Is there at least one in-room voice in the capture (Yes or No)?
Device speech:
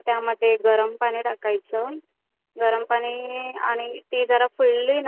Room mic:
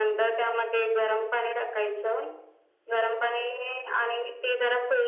No